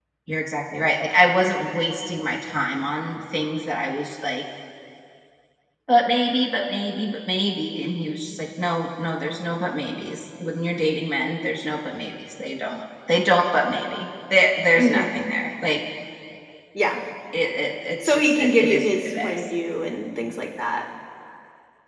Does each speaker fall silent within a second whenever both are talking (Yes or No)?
No